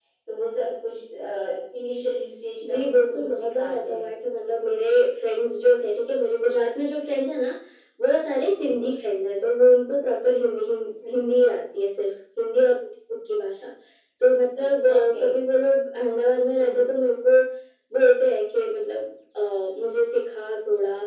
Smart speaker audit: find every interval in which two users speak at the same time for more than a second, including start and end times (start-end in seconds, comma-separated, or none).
2.7-4.1